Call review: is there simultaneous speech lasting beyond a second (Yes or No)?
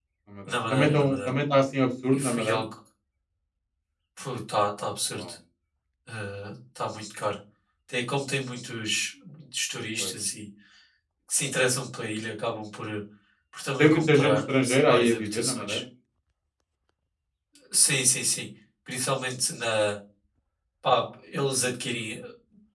Yes